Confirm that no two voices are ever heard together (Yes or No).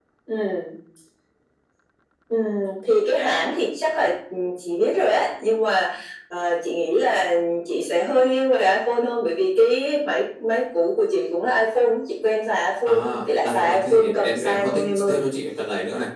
No